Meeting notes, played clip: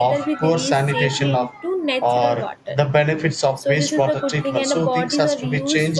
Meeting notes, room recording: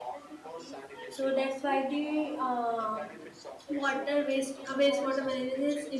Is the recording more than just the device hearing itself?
Yes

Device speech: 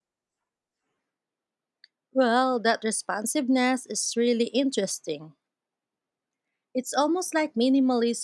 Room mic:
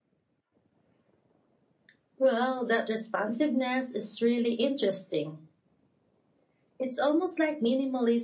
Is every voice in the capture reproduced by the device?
Yes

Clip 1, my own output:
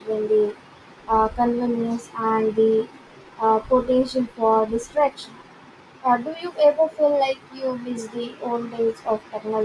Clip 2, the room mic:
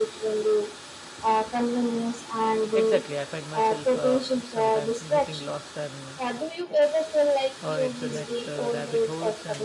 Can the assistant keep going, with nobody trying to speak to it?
No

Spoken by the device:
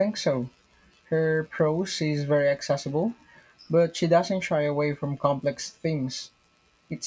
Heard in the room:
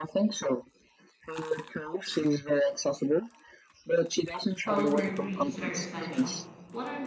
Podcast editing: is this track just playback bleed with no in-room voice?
No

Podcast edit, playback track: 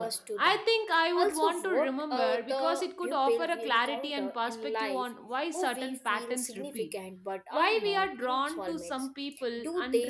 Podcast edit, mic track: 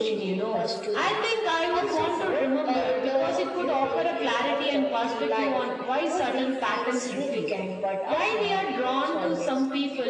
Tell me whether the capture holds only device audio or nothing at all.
Yes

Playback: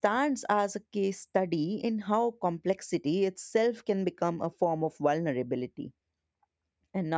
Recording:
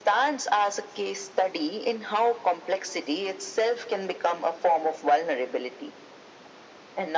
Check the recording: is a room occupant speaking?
No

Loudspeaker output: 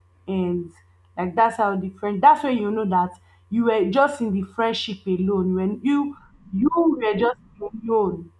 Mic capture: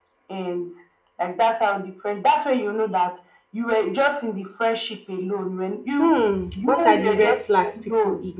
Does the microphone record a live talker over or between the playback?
Yes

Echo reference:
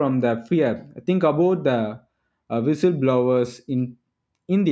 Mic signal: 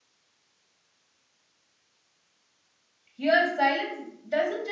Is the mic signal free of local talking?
No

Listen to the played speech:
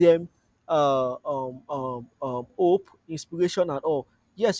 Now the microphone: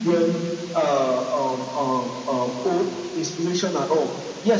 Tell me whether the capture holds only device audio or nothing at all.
Yes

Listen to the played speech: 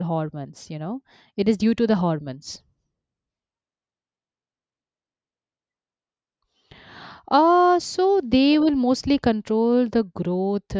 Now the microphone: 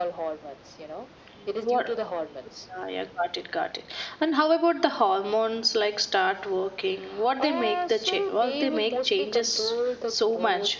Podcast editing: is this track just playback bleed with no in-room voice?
No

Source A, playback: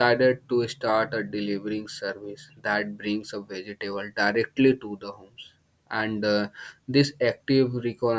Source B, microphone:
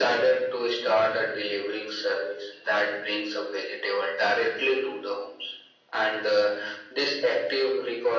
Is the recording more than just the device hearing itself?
No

